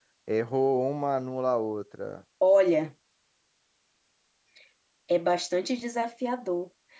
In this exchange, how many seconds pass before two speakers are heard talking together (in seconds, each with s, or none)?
none